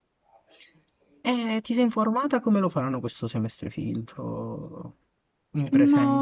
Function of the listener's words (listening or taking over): taking over